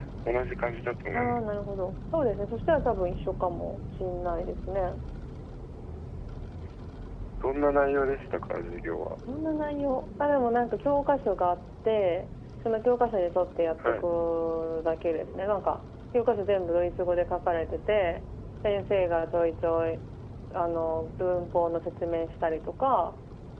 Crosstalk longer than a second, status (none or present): none